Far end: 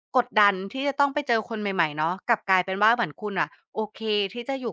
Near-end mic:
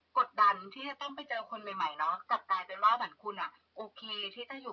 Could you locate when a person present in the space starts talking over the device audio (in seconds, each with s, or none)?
none